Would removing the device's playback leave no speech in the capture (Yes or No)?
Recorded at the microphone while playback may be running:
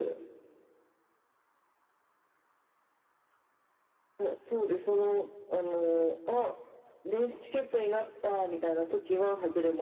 Yes